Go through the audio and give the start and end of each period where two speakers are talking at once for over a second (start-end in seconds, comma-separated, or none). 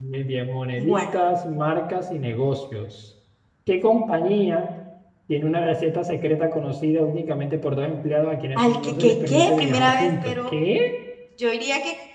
8.6-10.5